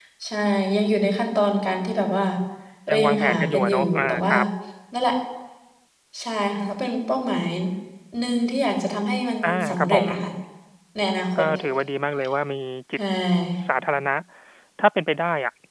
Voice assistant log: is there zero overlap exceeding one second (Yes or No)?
No